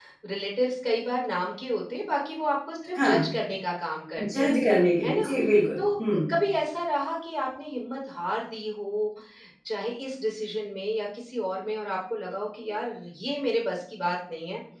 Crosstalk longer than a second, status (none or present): none